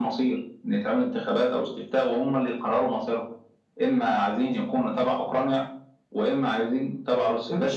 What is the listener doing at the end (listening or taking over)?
taking over